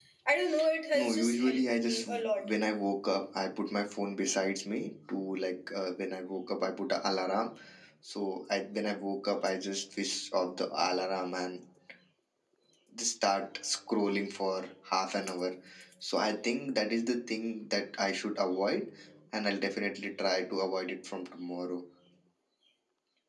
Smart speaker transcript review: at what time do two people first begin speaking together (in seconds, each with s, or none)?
0.9 s